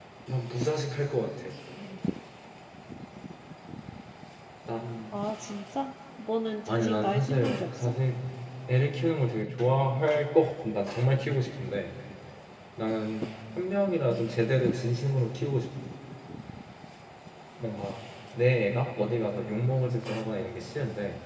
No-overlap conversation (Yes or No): No